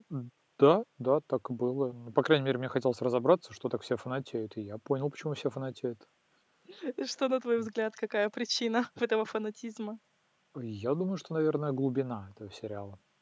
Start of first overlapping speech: none

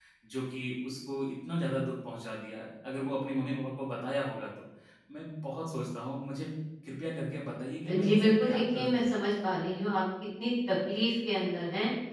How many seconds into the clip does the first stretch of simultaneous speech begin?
7.8 s

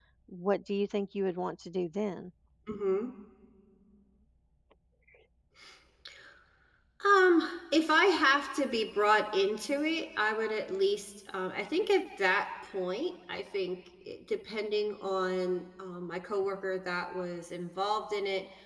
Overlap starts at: none

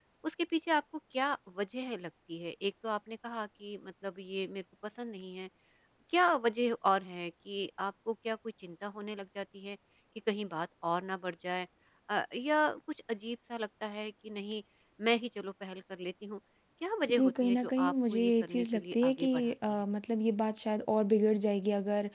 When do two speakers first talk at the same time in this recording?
17.1 s

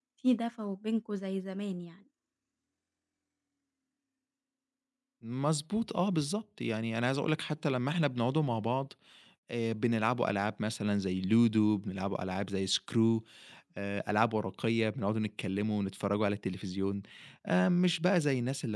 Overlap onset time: none

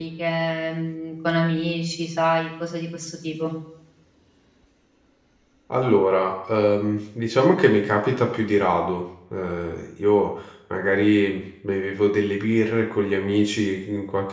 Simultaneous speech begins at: none

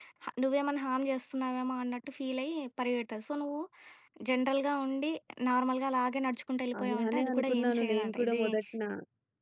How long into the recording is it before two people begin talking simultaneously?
6.7 s

